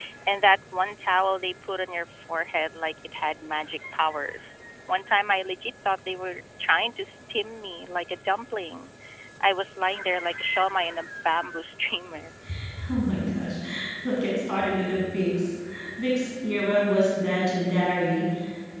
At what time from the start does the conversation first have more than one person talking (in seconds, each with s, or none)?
none